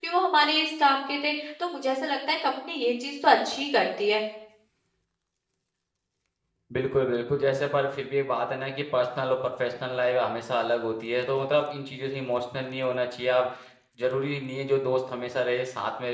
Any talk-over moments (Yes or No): No